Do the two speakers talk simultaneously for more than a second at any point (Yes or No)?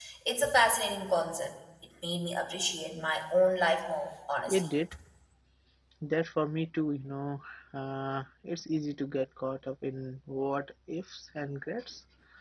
No